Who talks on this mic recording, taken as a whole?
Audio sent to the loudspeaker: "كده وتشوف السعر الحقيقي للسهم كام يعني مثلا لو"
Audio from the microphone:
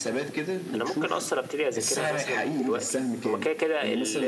both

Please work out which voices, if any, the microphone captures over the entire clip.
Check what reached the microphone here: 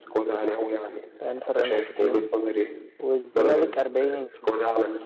both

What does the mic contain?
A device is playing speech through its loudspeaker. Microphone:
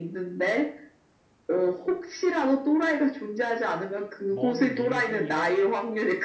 both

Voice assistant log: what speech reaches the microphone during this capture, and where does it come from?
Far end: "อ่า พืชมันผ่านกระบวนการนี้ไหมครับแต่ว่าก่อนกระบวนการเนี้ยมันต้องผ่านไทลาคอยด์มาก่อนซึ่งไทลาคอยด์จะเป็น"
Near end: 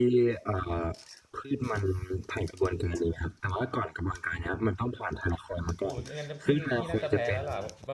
both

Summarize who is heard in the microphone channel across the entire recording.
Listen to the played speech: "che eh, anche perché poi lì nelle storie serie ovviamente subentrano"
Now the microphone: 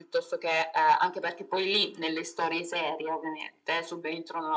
echo only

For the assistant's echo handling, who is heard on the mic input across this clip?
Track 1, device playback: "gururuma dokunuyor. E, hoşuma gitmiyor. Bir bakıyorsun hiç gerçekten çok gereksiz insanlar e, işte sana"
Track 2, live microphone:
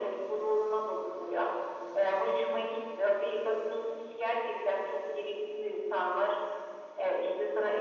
echo only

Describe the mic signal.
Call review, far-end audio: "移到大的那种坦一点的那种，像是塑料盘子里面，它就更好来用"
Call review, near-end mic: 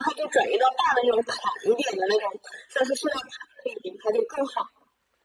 echo only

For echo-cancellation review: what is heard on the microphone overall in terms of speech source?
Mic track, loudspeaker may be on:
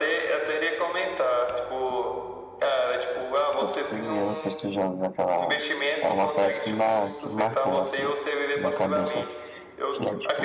both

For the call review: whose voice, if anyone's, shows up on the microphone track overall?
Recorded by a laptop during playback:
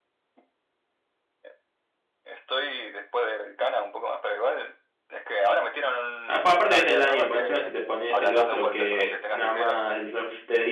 both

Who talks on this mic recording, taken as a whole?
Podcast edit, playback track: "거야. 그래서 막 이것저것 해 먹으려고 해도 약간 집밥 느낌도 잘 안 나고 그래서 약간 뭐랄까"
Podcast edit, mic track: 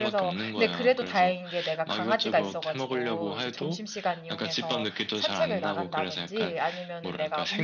both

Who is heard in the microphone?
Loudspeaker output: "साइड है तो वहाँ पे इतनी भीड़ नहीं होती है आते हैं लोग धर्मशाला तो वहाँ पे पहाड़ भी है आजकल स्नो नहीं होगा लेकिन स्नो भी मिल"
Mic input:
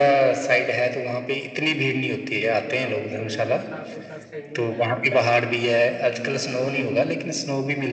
both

